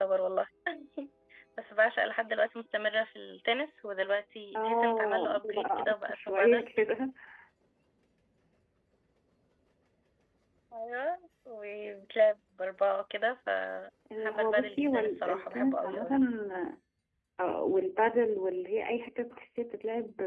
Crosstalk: present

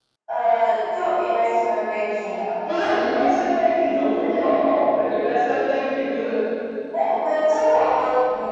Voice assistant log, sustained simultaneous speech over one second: none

